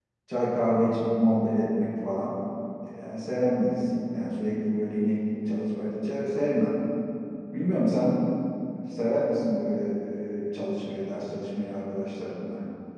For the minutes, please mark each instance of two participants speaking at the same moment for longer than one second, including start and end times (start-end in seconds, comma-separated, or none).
none